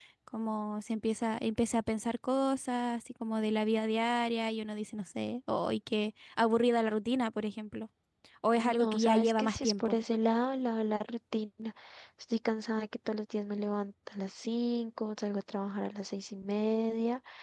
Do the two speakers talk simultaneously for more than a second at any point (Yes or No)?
Yes